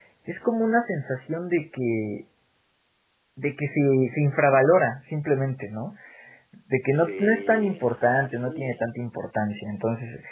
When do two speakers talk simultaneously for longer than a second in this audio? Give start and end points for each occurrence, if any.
7.0-8.8

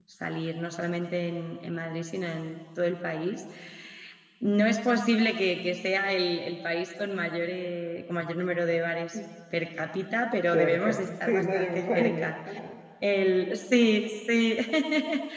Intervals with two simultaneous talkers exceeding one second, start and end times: 10.5-12.3

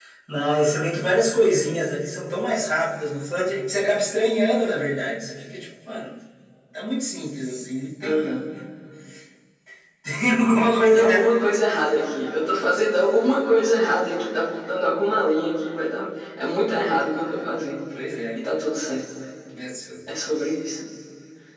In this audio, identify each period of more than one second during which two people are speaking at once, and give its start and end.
none

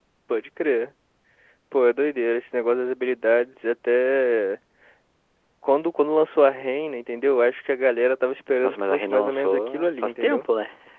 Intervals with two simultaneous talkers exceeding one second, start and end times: 8.6-10.5

